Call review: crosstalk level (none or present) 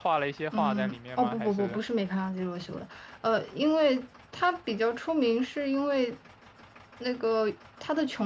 present